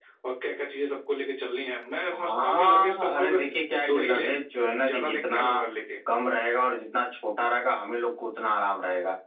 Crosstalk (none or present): present